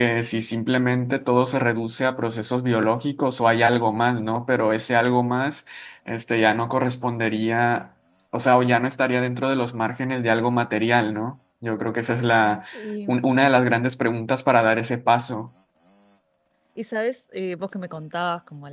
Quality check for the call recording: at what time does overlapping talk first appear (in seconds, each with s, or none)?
none